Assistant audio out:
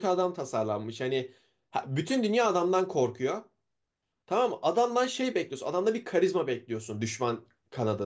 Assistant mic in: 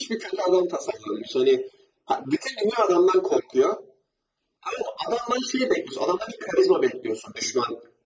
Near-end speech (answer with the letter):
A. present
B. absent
B